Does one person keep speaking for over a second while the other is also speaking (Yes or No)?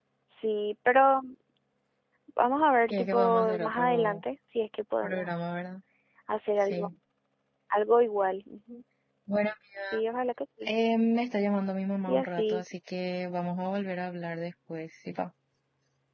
Yes